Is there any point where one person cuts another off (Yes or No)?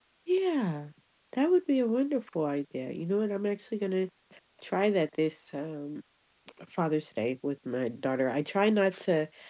No